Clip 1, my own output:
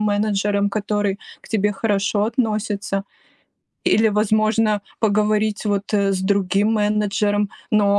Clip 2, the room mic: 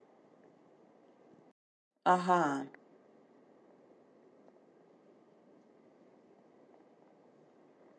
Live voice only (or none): Ага,